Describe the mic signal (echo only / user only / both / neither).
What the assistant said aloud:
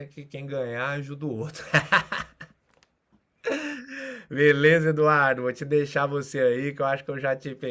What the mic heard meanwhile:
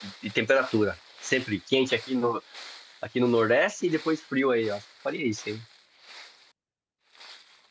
user only